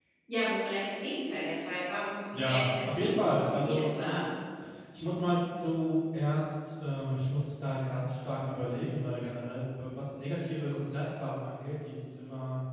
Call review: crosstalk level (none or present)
present